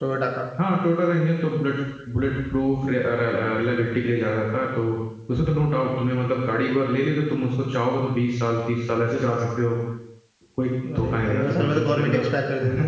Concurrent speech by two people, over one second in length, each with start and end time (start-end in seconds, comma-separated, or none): 11.0-12.3